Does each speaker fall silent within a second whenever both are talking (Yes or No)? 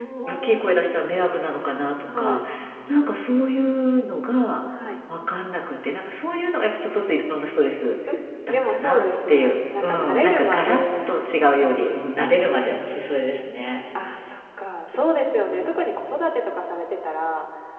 No